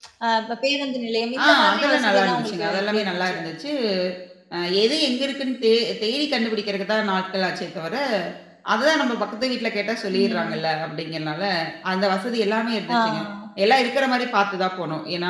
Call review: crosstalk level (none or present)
present